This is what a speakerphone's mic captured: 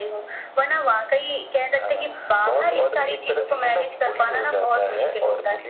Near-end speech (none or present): none